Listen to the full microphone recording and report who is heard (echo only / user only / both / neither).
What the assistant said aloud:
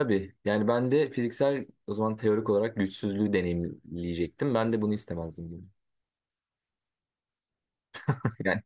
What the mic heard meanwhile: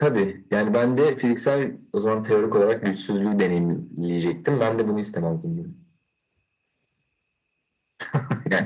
echo only